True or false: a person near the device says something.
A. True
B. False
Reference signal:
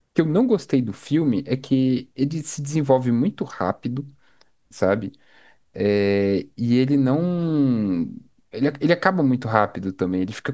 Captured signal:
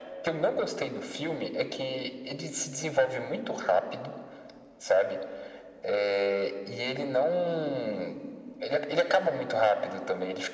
B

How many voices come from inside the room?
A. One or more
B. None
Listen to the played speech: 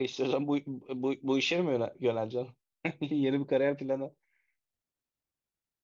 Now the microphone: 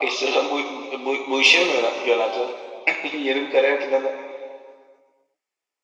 B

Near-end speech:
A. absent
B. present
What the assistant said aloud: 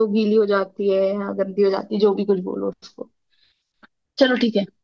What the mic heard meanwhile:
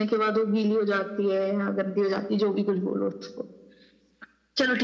A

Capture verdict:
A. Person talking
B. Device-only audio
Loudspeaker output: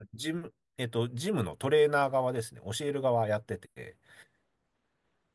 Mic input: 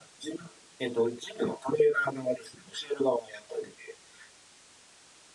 B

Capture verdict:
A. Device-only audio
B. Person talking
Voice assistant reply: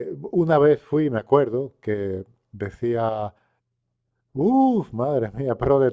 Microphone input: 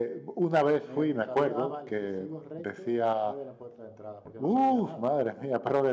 B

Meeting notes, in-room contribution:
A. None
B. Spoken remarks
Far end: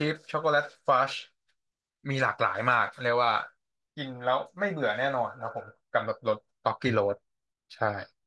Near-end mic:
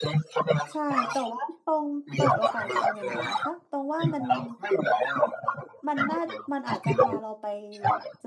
B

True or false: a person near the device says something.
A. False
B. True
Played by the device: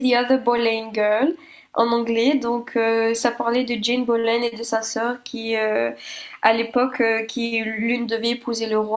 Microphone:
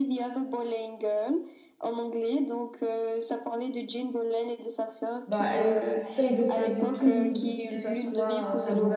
B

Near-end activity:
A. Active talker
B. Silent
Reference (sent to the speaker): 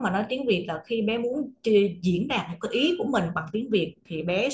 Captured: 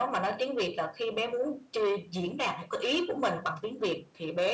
B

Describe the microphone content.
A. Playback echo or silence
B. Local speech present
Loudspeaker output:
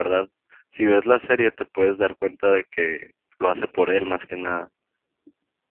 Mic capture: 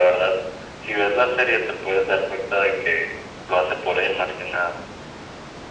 A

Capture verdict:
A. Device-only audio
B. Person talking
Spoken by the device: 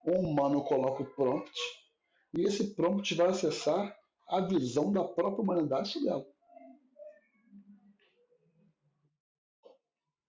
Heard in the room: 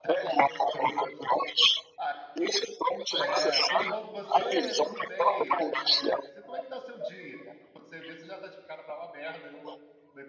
B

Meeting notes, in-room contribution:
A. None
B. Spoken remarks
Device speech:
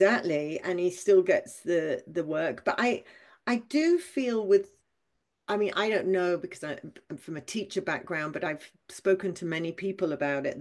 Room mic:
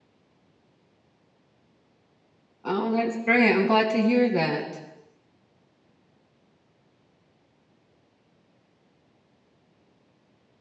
B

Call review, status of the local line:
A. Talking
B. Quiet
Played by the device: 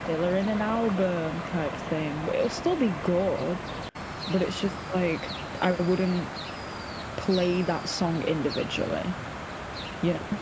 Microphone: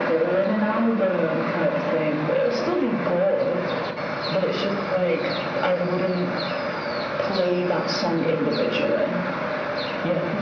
B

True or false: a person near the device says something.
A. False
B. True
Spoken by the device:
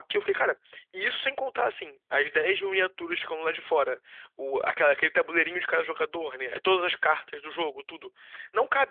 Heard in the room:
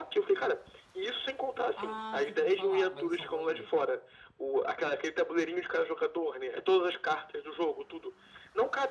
B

